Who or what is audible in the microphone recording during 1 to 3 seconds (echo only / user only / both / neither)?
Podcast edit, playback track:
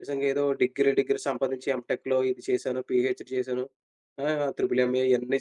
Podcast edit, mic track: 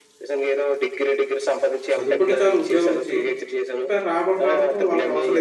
both